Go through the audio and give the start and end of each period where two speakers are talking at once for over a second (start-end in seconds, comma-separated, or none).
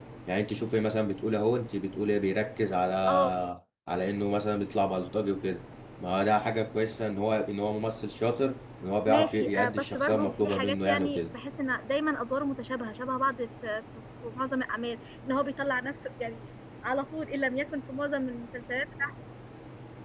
9.1-11.2